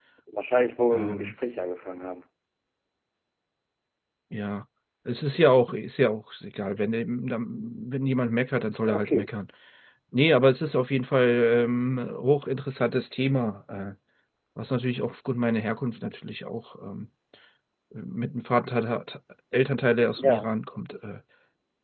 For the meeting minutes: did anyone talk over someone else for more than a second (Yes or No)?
No